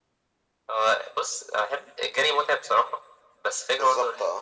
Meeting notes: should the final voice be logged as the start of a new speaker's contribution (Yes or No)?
No